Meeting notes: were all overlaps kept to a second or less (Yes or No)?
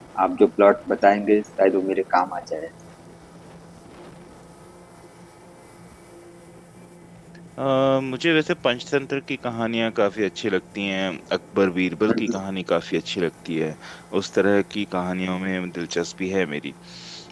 Yes